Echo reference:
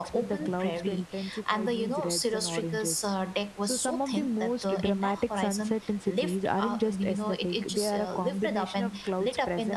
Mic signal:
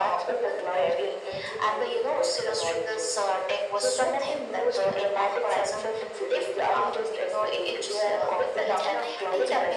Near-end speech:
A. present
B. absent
A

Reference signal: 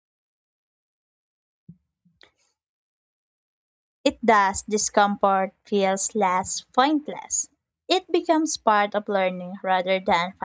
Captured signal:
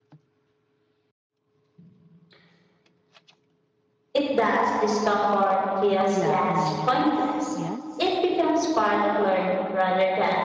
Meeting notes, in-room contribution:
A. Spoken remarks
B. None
A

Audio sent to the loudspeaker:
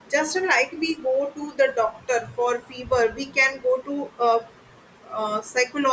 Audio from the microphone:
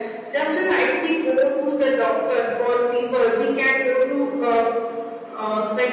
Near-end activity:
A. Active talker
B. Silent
B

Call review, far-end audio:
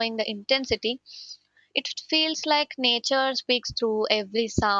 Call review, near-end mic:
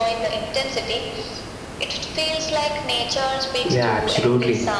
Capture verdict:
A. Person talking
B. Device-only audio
A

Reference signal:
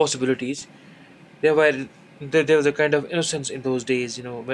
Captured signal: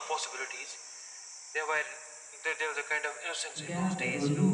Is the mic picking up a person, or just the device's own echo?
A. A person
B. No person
A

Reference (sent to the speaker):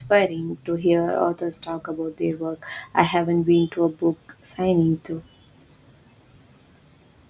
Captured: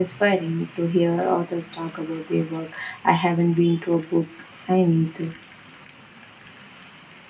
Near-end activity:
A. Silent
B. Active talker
A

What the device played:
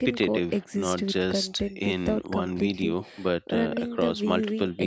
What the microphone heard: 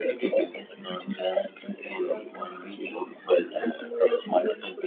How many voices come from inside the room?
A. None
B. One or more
A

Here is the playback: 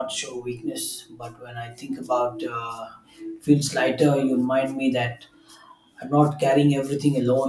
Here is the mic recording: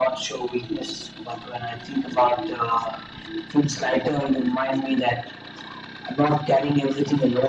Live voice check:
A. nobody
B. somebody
A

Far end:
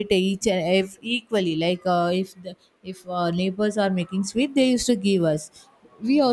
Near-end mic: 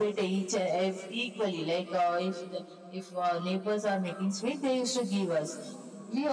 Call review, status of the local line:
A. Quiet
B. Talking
A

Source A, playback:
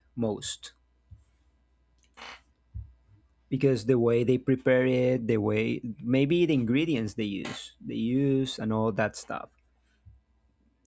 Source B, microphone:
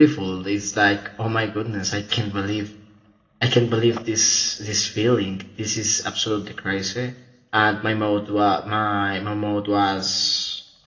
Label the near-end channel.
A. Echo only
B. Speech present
B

